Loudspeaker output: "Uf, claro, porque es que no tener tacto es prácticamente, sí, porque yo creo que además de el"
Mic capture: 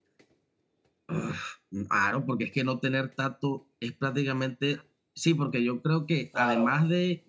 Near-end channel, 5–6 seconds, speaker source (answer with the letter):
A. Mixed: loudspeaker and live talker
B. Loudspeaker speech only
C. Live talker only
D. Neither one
B